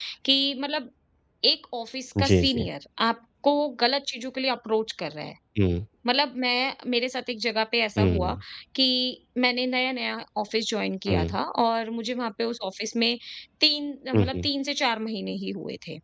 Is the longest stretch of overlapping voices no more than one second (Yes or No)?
Yes